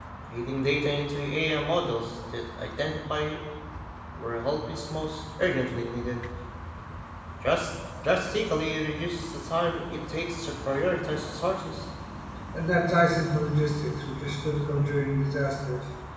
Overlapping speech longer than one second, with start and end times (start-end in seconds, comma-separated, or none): none